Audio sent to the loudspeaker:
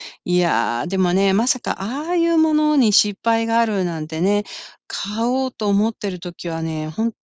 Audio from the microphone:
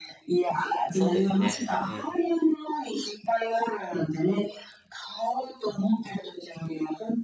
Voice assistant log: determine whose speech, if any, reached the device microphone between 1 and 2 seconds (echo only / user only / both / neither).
both